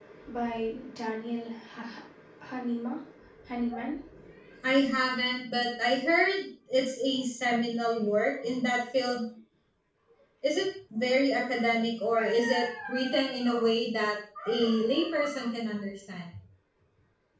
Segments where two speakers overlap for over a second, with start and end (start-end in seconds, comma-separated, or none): none